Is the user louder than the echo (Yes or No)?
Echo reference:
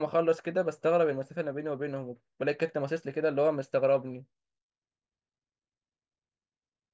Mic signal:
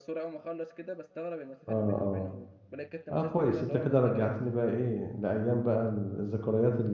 Yes